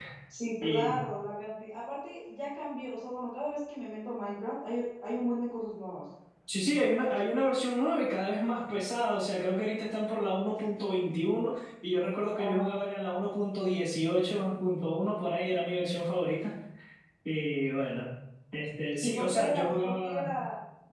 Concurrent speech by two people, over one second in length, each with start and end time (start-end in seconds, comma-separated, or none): 19.0-20.3